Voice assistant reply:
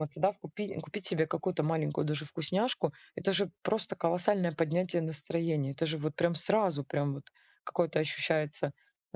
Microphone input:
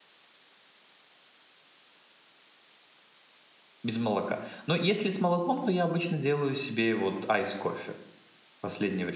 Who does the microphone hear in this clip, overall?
user only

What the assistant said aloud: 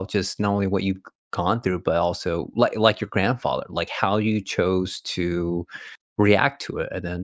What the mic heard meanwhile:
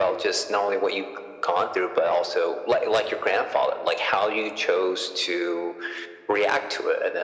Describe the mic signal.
echo only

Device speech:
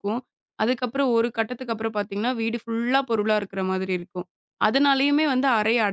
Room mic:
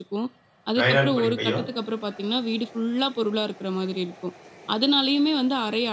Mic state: both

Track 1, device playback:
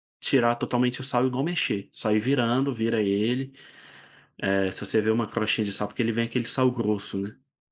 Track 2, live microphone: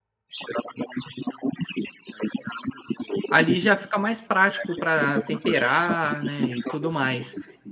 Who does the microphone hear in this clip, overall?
both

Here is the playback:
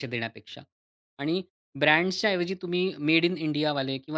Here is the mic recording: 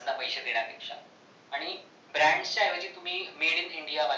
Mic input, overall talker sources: echo only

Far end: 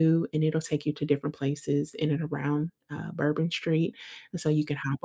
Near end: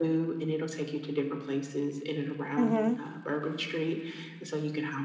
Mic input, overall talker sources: both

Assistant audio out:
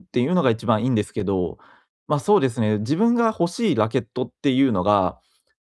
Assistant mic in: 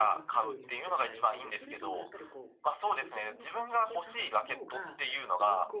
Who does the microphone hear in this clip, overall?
both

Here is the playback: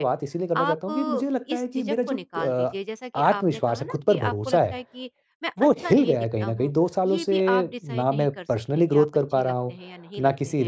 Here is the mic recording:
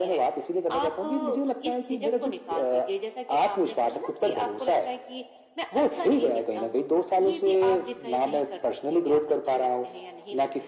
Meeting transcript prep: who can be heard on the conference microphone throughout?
echo only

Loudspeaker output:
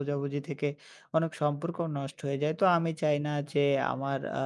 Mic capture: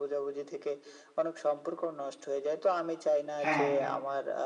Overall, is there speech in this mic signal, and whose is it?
both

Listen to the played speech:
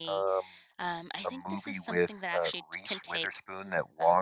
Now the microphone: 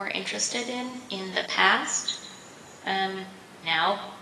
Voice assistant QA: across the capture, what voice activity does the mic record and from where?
user only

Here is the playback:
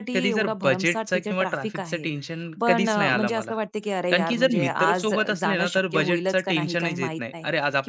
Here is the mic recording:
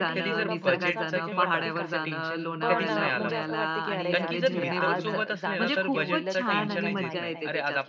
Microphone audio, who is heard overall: both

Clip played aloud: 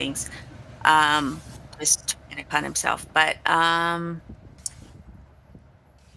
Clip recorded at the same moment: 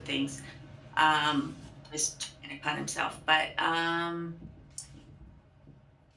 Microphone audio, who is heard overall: echo only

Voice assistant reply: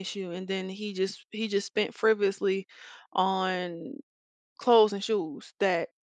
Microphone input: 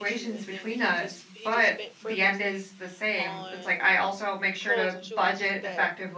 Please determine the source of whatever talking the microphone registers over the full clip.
both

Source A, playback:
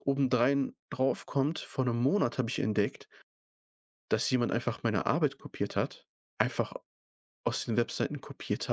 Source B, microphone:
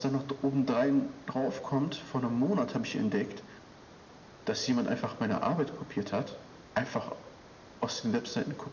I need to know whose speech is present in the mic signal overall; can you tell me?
echo only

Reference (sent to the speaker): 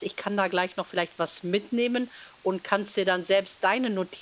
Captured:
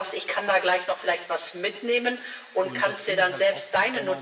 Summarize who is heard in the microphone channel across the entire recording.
both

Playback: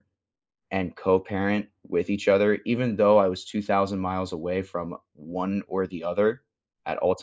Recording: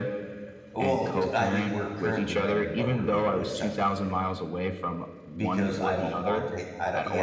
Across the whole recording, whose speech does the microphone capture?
both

